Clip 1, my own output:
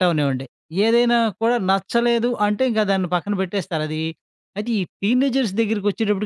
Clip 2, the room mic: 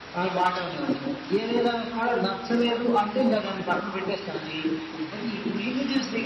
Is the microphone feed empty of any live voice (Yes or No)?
Yes